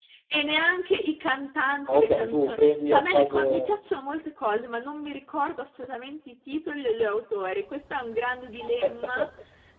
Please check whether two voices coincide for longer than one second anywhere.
Yes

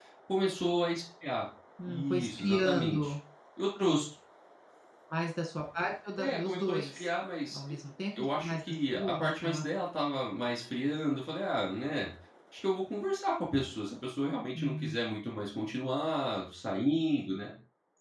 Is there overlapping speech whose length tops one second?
Yes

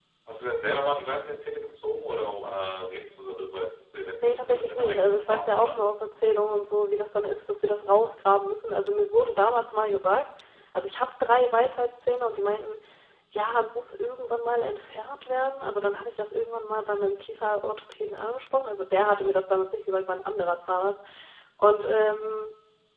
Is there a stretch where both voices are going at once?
Yes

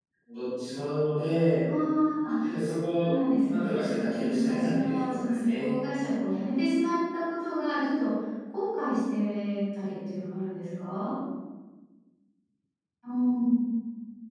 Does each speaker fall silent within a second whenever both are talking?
No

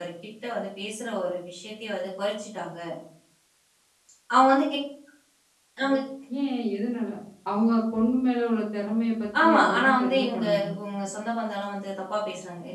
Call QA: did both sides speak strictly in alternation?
No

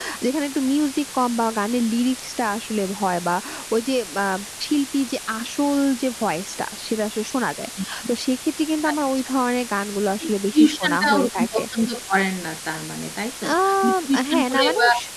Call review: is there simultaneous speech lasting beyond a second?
Yes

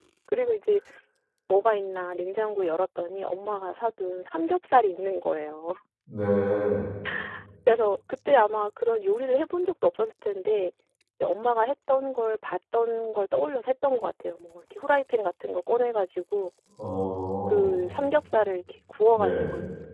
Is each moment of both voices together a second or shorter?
Yes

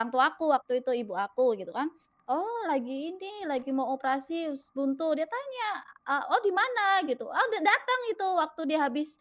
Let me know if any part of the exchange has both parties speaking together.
No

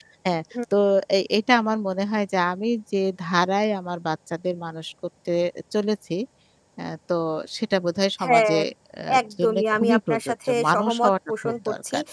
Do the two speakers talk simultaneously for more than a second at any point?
Yes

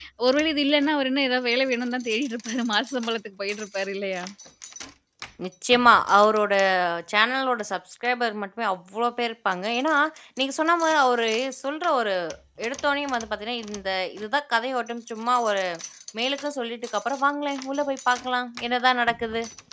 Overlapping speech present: No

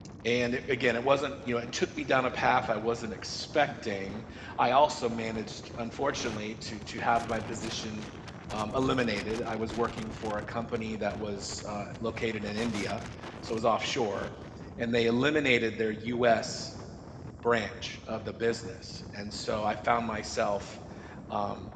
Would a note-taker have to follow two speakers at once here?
No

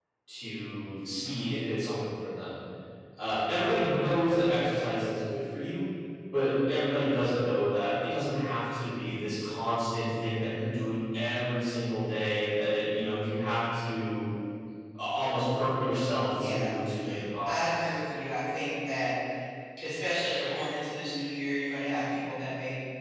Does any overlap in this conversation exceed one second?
No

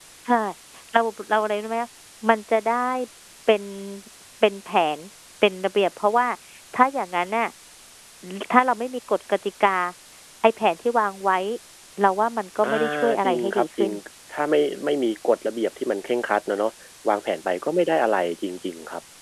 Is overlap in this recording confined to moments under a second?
No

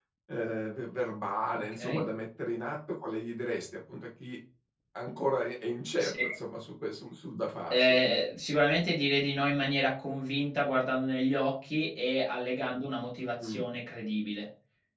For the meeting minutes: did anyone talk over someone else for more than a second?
No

